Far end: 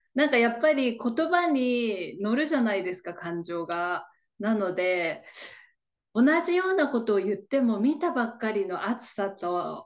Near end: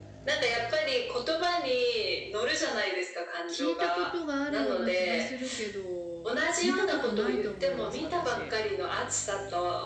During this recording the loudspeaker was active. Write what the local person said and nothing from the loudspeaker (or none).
聞いたことがあるような気がするけど、見たことないと思います、私。